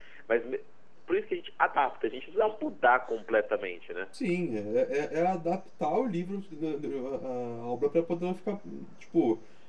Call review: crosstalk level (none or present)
none